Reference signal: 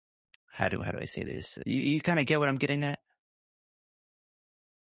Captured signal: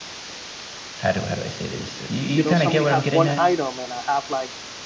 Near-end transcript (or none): you know, somebody has one item and I have like,